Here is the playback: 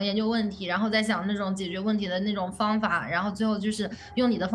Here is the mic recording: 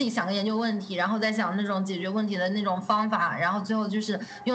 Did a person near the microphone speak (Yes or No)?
No